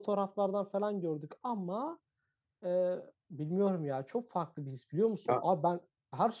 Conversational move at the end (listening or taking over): listening